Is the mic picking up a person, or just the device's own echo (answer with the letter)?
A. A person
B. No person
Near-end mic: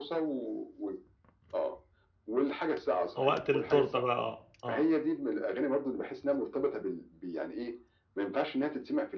A